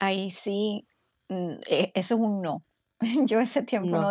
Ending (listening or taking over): listening